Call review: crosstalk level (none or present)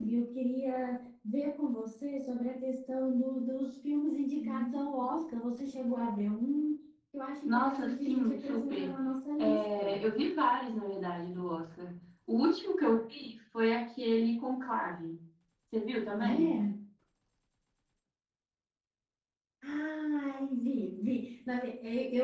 present